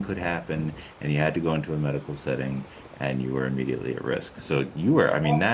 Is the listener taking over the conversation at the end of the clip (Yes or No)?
No